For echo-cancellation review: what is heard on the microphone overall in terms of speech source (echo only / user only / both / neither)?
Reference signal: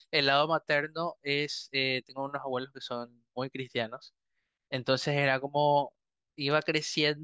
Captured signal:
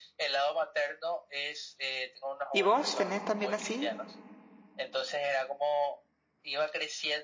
both